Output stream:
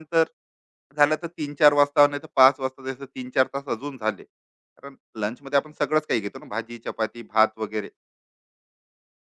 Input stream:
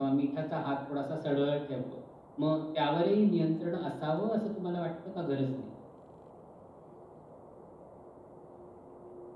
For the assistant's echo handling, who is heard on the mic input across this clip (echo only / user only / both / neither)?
user only